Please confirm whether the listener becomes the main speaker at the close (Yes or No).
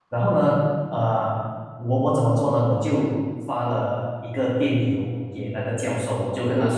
No